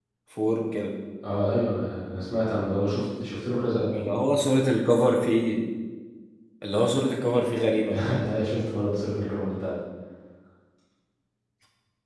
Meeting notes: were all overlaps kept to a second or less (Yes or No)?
Yes